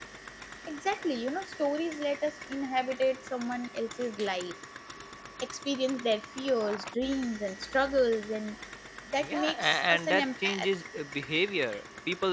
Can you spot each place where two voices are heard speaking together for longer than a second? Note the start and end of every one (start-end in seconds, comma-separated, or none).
9.2-10.7